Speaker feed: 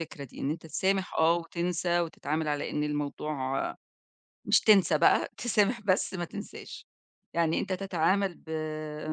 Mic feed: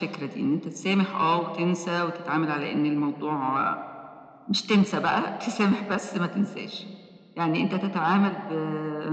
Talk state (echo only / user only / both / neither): echo only